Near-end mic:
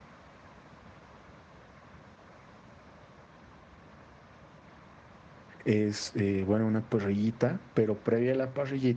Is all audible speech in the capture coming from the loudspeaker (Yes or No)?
No